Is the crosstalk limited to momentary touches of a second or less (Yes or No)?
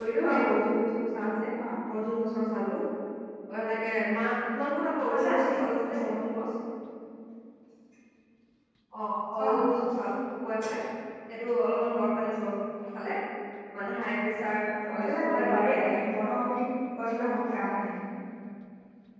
No